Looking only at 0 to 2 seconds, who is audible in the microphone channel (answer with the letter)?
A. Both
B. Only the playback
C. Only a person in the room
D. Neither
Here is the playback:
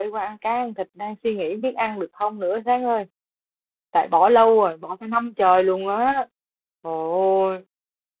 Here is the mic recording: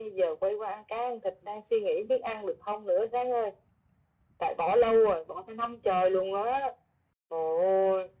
B